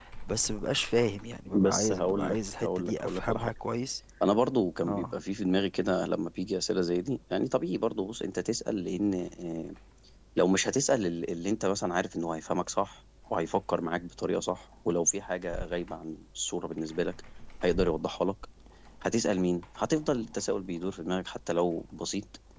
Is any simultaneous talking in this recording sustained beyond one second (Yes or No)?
Yes